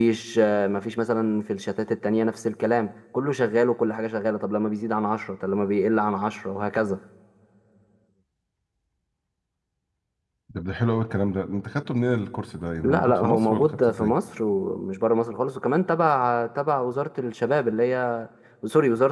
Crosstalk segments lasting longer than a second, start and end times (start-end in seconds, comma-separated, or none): 12.8-14.1